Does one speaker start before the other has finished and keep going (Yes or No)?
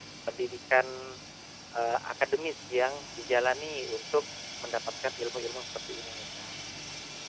No